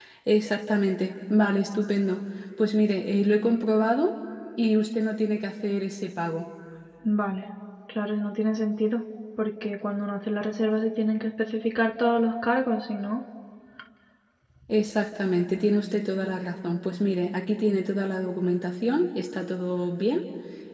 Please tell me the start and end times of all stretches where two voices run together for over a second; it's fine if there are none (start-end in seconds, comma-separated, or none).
none